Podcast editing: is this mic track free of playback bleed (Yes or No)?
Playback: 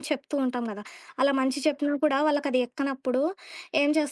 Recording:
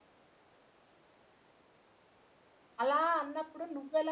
Yes